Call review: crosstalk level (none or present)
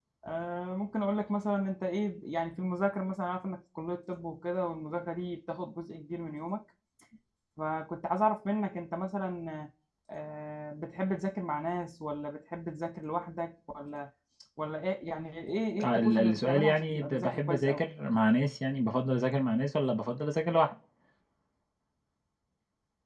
present